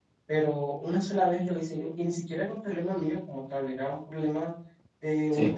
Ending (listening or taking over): listening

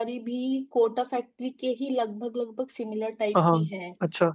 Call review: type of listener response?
taking over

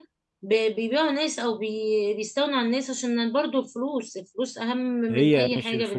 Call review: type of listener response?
taking over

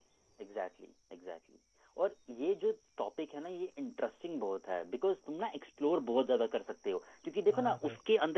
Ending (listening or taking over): listening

